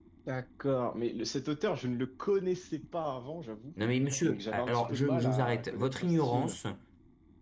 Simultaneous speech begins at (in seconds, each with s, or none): 4.2 s